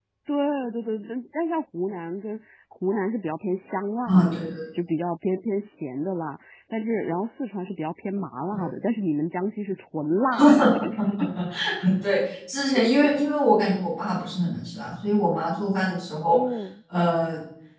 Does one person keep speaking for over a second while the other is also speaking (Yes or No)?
No